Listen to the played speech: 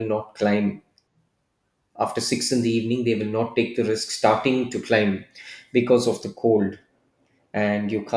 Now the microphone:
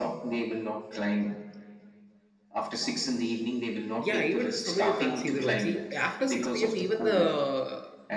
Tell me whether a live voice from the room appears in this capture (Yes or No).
Yes